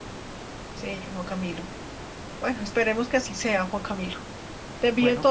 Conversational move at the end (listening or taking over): listening